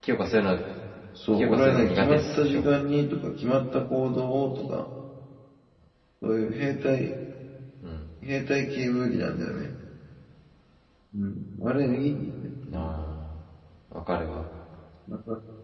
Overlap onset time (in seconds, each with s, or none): 1.3 s